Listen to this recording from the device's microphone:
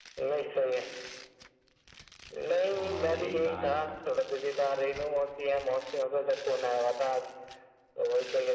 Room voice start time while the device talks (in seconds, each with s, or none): 2.8 s